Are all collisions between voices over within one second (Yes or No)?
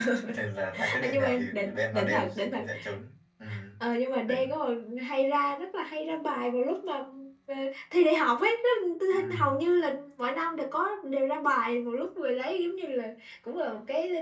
No